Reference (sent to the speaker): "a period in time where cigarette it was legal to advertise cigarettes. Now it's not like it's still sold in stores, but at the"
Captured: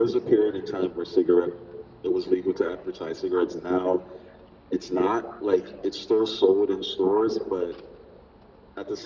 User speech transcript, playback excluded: none

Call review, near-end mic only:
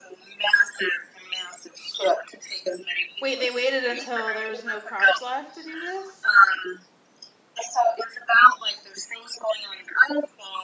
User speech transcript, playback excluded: Wait, they waited until there was no crops left to do this?

